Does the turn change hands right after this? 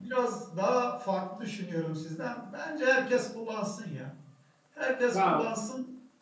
No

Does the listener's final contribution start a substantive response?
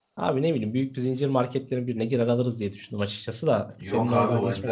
Yes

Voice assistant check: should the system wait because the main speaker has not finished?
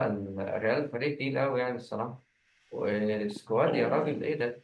Yes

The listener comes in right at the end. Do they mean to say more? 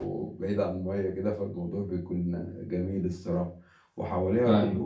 No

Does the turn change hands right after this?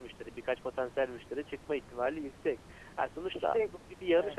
No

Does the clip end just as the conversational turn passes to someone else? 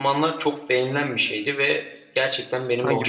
No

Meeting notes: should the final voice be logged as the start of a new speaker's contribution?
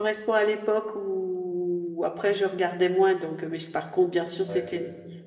No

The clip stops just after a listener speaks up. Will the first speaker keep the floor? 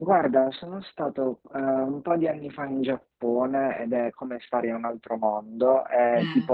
Yes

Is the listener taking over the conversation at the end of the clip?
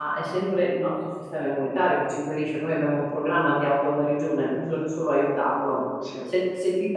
No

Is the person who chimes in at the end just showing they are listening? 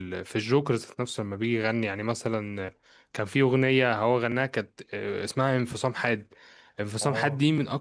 Yes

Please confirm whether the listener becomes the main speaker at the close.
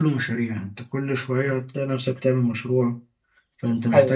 No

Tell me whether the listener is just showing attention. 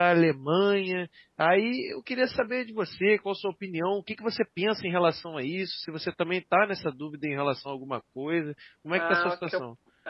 No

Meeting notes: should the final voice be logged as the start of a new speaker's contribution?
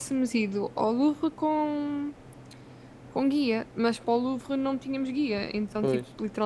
No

